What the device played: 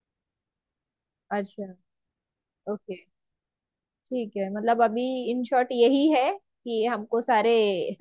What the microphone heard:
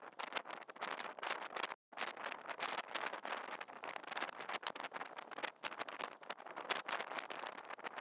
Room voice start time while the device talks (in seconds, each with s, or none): none